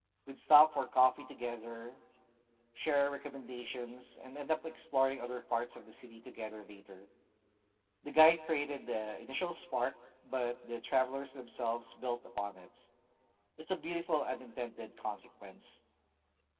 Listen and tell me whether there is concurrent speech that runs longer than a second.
No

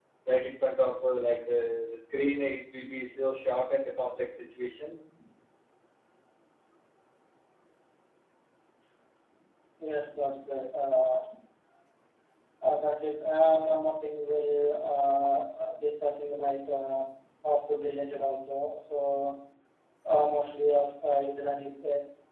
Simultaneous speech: No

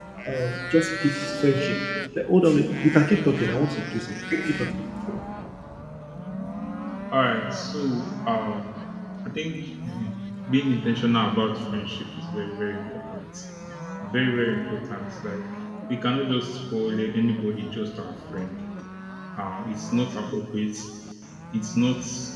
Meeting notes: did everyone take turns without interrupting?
Yes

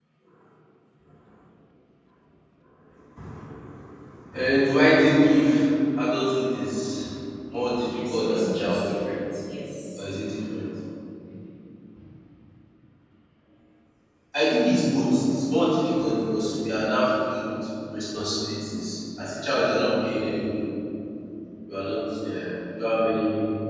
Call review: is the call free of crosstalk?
No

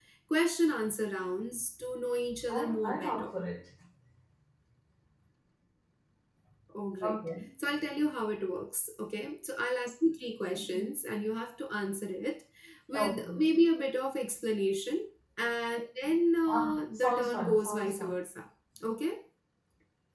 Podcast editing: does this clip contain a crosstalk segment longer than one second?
Yes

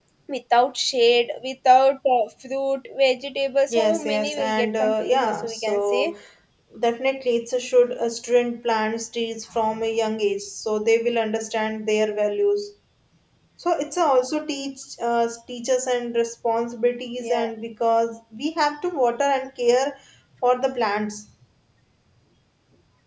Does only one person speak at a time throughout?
No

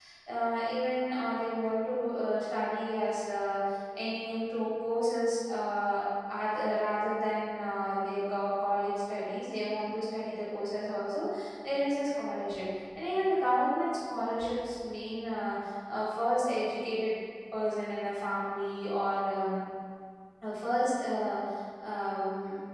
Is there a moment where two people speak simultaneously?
No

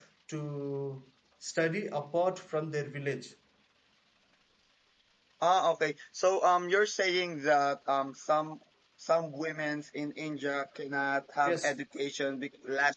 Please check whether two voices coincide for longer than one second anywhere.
No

